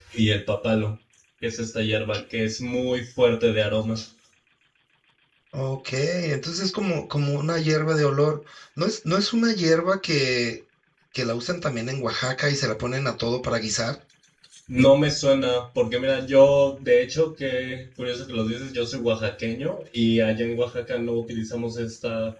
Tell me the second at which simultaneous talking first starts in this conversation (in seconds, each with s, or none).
none